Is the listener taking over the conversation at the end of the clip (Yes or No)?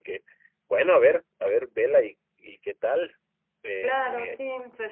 Yes